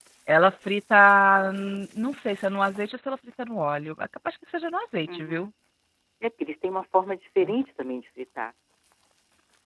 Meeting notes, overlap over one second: none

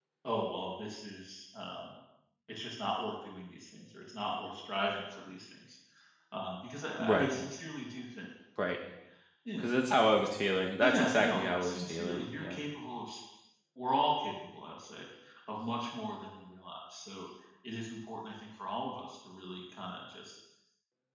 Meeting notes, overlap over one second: present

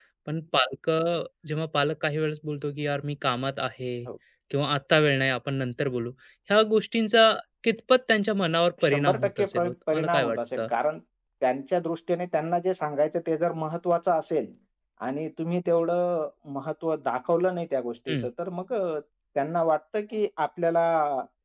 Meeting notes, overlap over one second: present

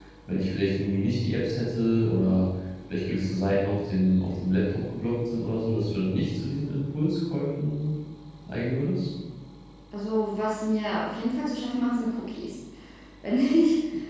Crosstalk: none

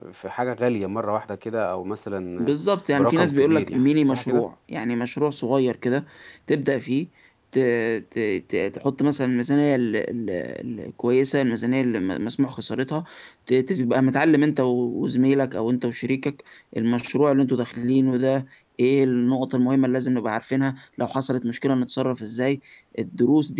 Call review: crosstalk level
present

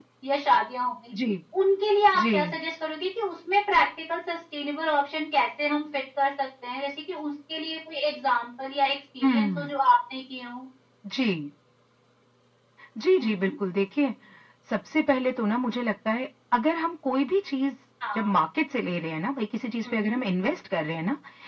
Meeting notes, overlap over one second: none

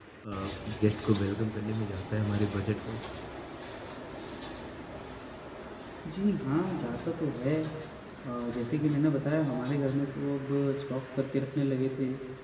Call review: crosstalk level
none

